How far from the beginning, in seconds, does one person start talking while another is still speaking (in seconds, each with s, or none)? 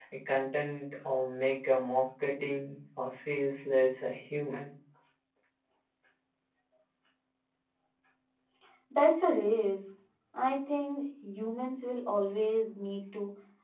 none